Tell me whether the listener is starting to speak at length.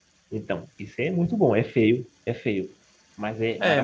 Yes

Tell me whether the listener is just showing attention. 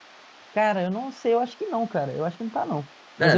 No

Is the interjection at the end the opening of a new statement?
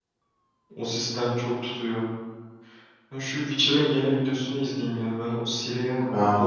Yes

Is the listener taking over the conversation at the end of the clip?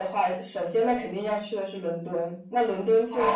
No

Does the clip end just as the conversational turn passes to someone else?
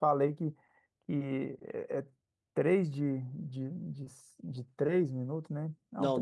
Yes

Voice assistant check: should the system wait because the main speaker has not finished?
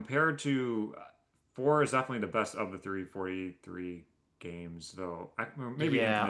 No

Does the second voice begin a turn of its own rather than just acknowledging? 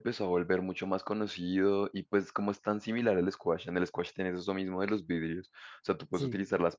No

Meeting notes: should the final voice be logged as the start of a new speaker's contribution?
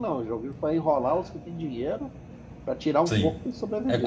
Yes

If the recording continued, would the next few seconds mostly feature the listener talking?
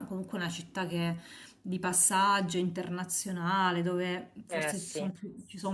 No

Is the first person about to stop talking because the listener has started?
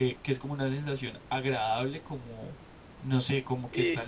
No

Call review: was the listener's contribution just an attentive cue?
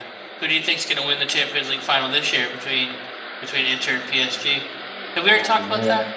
No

